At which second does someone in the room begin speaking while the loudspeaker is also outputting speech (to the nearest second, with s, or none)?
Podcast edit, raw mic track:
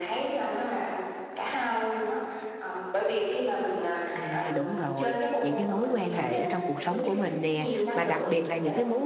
4 s